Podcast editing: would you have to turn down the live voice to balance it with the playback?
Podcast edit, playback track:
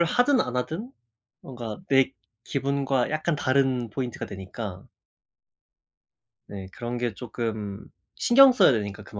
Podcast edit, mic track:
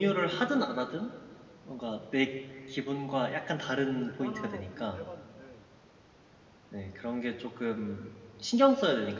No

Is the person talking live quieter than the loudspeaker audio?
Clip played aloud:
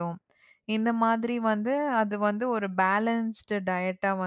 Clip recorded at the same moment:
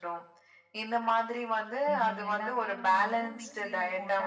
Yes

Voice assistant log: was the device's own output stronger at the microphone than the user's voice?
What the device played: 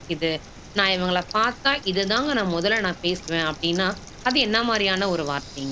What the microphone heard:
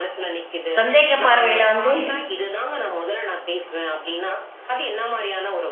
No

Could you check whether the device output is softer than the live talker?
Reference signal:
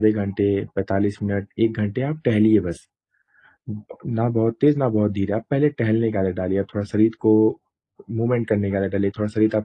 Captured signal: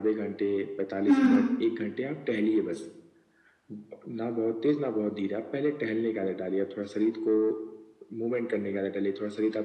Yes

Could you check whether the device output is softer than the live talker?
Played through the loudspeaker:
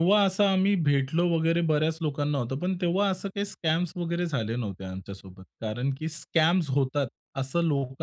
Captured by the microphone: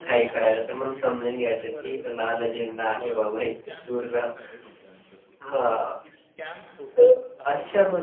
Yes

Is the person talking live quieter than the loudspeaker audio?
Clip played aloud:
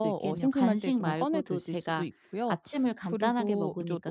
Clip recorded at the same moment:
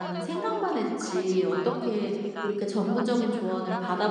No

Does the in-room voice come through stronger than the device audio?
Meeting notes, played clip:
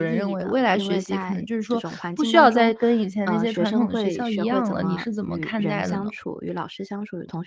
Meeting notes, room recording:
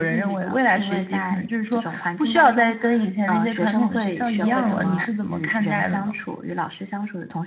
No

